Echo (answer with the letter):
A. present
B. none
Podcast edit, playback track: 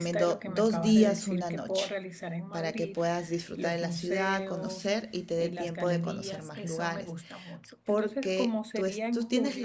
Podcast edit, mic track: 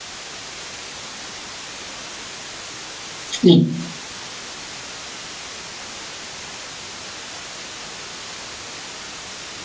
B